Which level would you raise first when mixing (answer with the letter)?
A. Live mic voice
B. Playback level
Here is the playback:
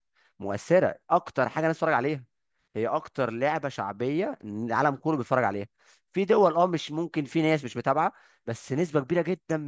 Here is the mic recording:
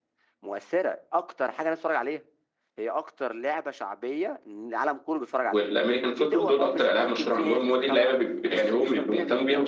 B